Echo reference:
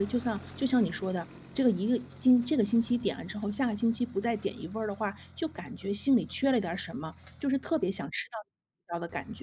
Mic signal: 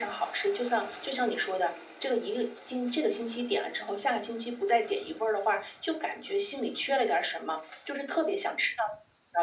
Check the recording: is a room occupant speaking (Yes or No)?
No